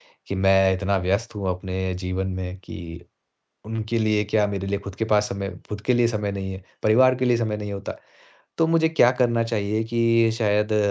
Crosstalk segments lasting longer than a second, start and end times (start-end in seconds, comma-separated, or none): none